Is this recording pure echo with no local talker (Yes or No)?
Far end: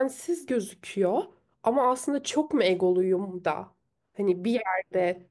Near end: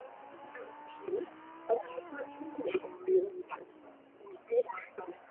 Yes